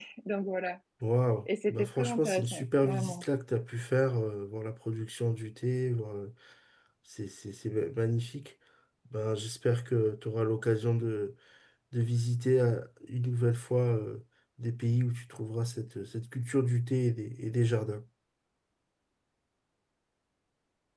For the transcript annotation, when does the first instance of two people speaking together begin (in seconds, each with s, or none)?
1.4 s